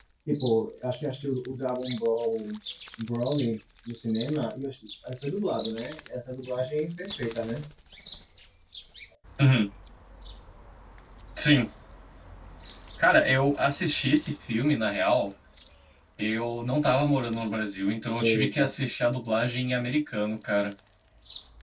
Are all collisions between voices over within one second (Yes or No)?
Yes